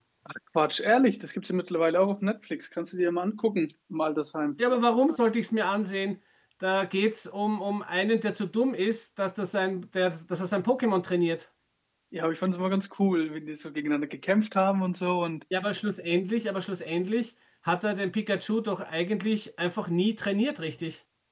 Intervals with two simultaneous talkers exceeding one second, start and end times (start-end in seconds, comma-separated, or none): none